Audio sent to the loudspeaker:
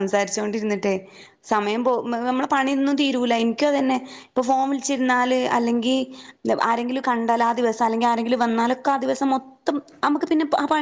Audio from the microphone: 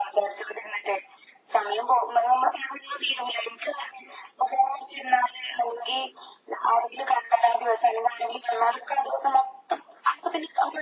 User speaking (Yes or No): No